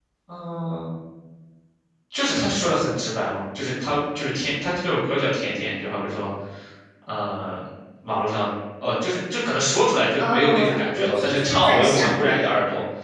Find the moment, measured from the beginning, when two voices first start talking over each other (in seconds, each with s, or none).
10.2 s